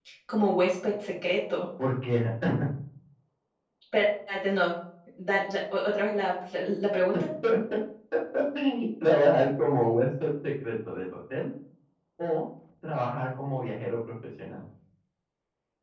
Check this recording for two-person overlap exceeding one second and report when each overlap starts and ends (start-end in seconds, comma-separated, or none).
none